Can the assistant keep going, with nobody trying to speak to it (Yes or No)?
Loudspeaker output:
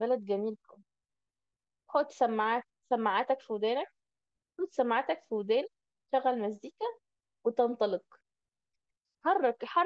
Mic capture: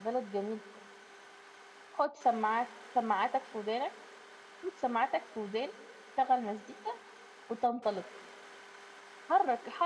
Yes